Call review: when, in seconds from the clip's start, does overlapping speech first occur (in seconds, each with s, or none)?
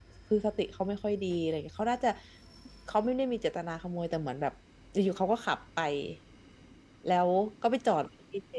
none